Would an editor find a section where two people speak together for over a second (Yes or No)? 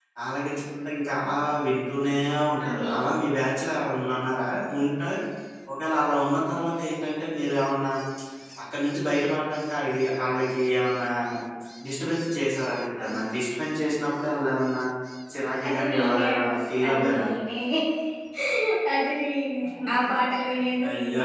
Yes